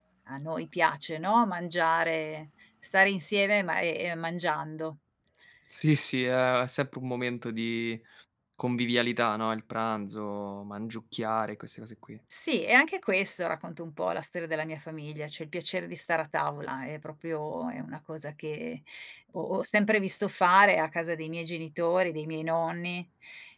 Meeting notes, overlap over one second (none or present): none